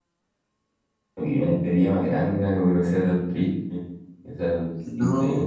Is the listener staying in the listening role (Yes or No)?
No